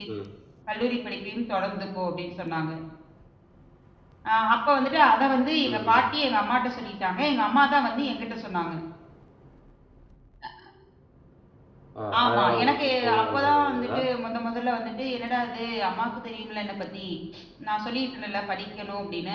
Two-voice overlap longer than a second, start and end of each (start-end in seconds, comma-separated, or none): 12.2-14.0